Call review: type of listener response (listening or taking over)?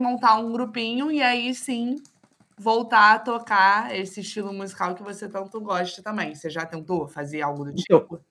taking over